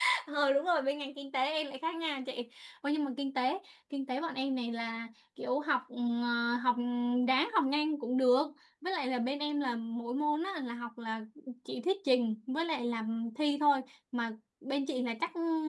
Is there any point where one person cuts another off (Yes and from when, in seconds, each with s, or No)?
No